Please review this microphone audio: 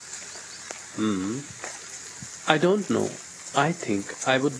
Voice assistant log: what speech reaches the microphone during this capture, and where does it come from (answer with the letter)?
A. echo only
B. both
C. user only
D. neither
C